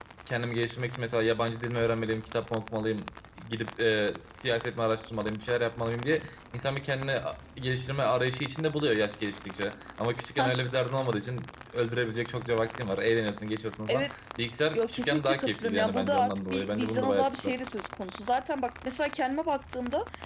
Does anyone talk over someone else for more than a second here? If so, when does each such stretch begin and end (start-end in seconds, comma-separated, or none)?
14.8-17.6